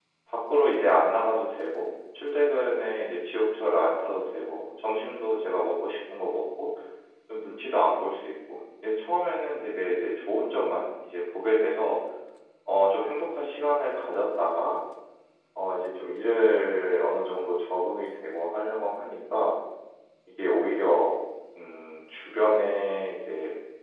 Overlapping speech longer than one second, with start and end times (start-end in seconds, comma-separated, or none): none